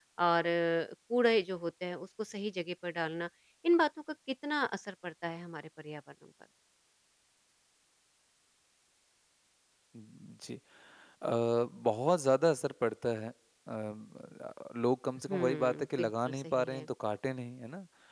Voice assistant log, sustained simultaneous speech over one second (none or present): present